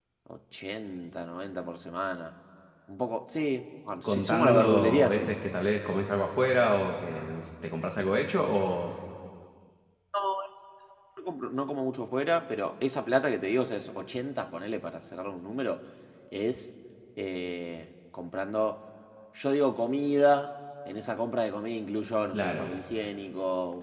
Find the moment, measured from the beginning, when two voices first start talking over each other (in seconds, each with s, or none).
4.0 s